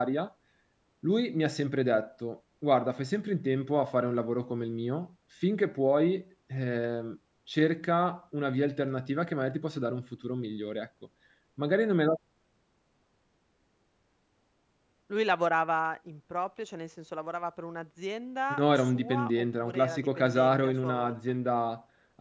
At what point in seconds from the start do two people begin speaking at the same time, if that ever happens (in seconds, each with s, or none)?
18.5 s